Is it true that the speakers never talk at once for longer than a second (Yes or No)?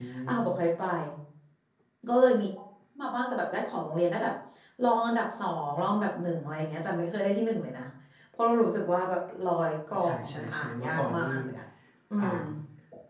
No